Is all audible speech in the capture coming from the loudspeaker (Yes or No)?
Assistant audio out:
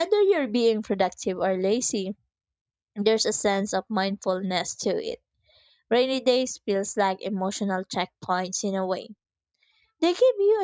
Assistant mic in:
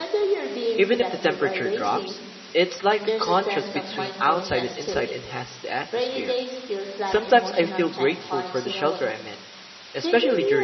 No